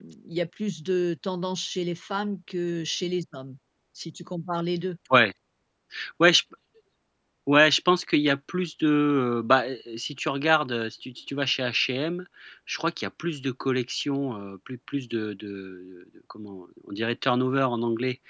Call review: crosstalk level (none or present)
none